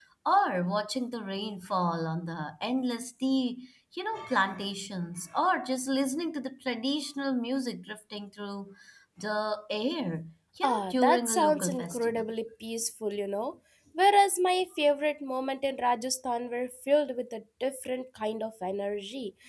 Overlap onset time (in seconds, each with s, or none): 10.6 s